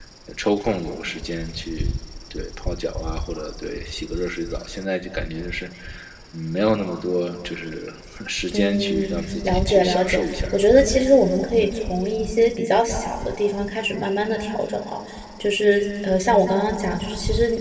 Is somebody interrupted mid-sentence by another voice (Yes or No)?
Yes